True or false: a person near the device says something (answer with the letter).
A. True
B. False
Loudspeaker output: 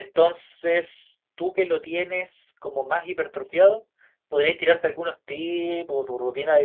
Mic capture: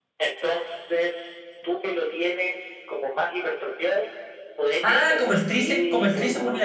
A